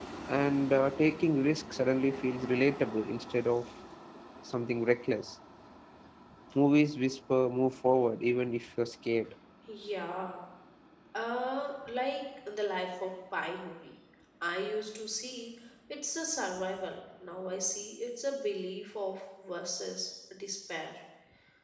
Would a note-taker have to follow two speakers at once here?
No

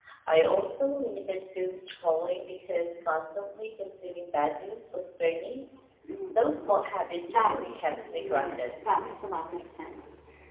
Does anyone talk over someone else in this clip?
Yes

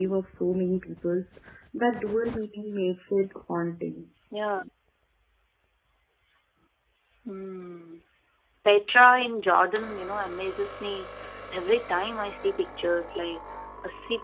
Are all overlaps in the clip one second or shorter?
Yes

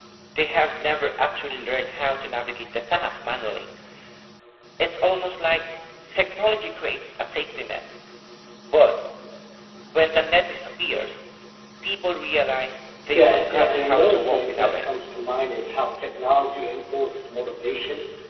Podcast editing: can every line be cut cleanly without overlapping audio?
No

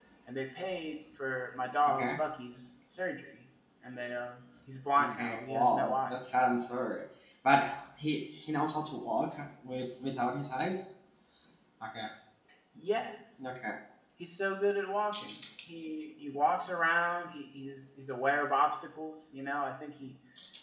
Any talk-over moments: Yes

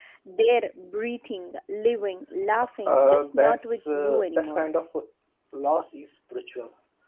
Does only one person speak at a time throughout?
No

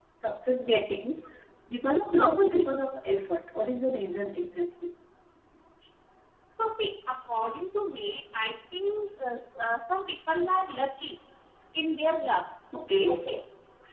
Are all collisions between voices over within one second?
Yes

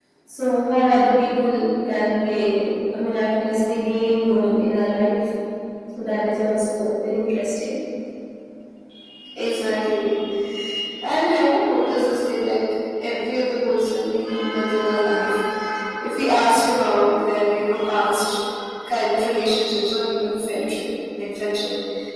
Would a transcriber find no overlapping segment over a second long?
Yes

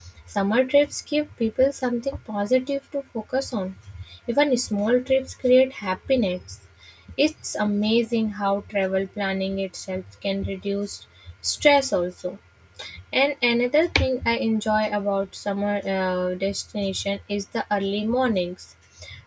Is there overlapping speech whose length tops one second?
No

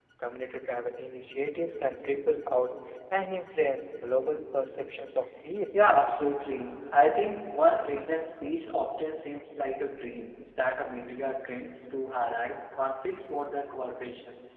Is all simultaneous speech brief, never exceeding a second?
Yes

